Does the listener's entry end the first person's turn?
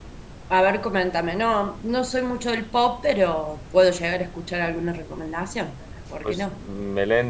Yes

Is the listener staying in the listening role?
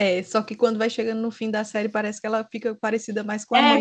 No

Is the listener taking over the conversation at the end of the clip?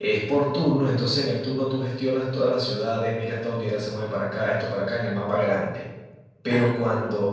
No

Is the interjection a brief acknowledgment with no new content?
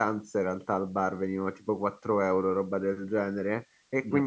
Yes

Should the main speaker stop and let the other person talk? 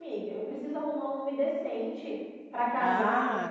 Yes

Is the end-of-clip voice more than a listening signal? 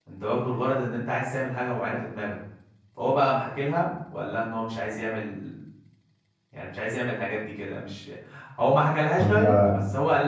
No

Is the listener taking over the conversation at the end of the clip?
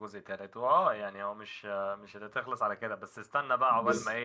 No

